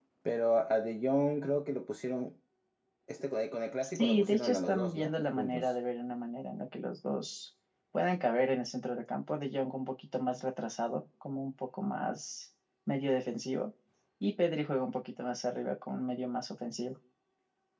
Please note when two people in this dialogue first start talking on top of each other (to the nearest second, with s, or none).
4 s